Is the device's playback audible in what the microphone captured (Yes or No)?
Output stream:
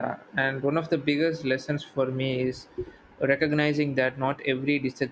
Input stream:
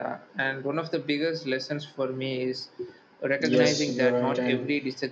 Yes